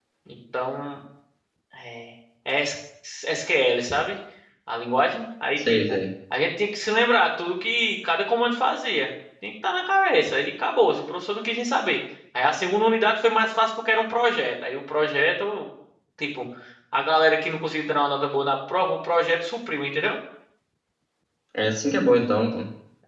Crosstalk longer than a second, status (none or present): none